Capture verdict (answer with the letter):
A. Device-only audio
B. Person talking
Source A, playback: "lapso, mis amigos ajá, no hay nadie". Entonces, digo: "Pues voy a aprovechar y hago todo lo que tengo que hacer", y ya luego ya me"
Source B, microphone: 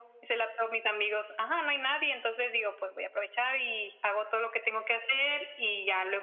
A